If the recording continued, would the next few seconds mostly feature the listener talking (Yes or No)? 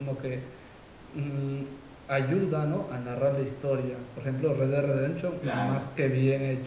No